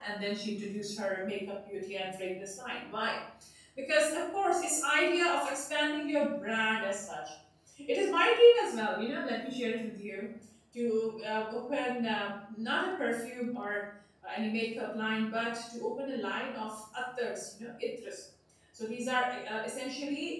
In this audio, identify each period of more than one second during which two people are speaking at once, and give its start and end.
none

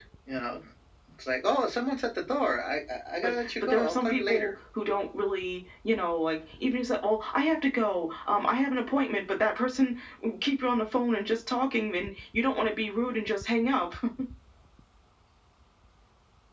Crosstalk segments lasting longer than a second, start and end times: 3.2-4.5

